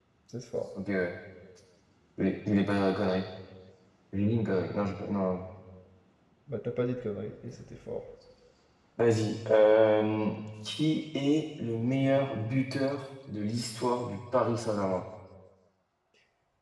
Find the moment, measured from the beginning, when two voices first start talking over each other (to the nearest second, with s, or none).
none